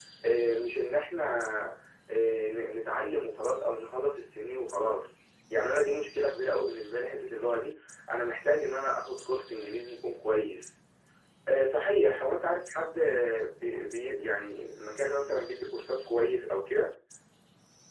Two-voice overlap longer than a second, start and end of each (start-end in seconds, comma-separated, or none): none